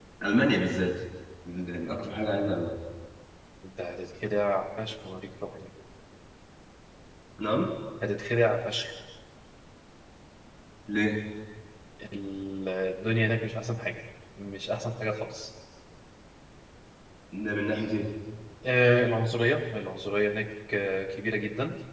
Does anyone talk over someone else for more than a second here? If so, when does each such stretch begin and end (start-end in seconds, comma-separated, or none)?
none